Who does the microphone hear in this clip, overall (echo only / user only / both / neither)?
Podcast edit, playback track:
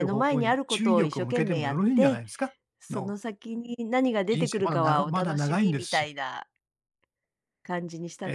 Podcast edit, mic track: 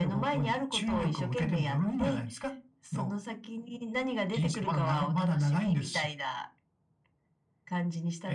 echo only